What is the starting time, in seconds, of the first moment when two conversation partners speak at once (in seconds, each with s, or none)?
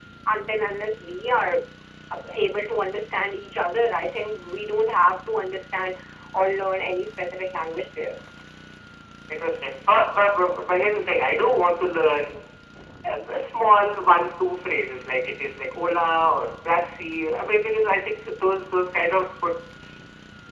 none